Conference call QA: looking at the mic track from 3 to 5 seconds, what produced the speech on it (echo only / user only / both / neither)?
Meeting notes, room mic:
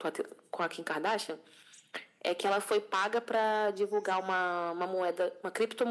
echo only